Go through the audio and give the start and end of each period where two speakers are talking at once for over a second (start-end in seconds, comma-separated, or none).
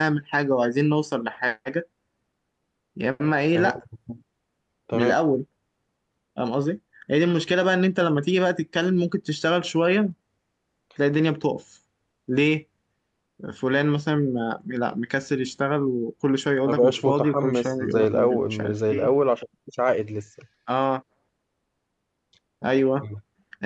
16.7-19.1